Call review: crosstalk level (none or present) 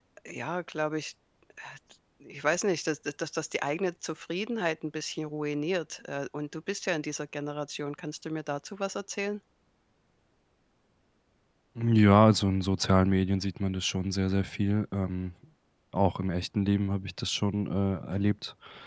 none